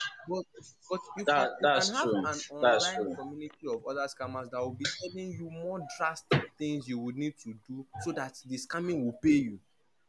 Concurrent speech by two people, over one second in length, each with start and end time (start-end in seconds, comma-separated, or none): 1.3-3.1